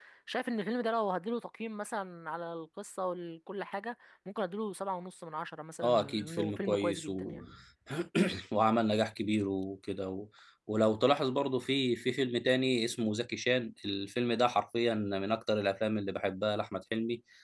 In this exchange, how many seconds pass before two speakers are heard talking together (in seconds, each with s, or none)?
5.8 s